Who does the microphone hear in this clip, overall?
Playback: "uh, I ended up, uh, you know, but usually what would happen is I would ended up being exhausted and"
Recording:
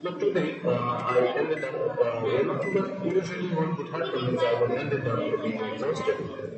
both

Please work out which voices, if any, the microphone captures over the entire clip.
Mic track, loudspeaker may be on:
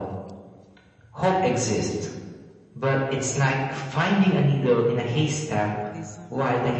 both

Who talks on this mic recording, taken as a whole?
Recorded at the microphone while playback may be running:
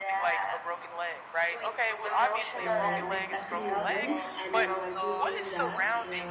both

